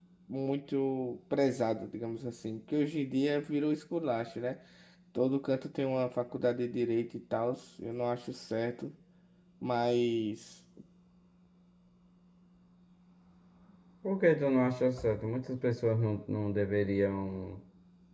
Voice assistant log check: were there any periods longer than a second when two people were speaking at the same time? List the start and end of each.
none

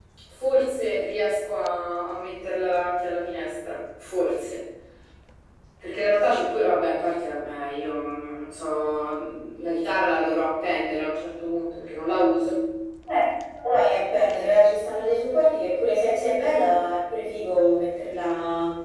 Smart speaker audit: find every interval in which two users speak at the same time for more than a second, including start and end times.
none

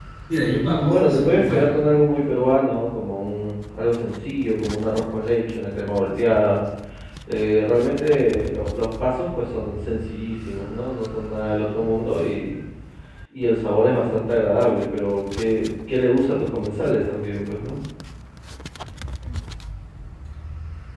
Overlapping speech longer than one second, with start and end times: 0.6-1.8

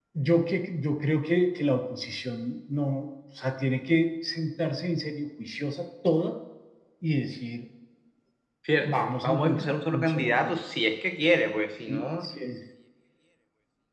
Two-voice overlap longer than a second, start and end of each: 8.9-10.6

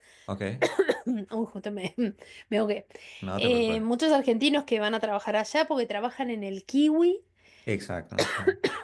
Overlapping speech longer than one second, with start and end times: none

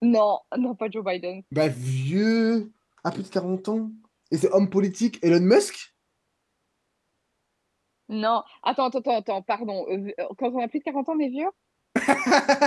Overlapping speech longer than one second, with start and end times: none

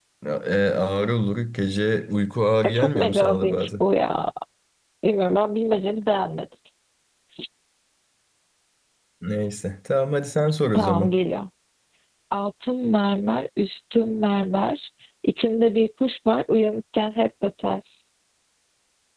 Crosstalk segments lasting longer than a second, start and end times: 2.6-3.8

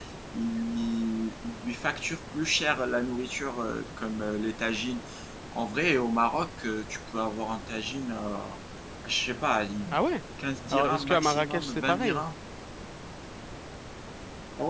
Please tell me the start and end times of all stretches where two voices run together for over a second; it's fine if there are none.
10.7-12.2

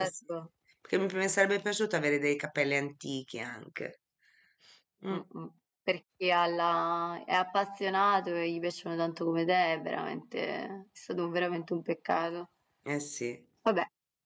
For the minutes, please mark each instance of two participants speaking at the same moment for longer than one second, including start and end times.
none

